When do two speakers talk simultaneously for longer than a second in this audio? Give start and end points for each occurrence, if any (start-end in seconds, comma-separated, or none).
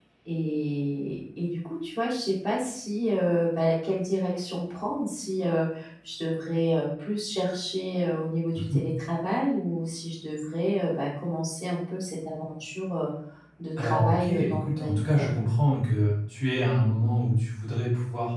13.8-15.3